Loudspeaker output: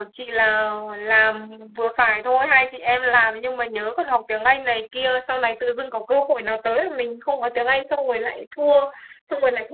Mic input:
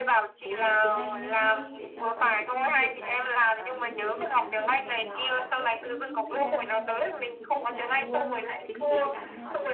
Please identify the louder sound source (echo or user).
echo